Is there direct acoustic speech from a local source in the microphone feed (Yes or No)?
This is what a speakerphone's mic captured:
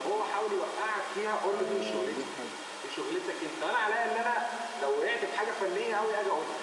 Yes